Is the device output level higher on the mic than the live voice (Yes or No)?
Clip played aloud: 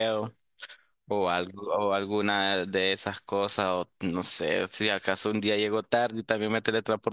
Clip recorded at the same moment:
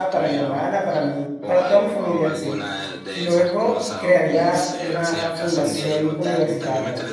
No